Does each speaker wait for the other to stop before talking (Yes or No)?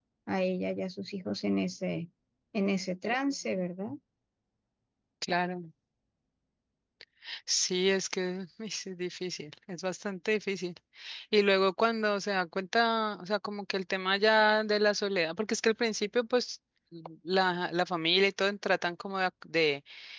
Yes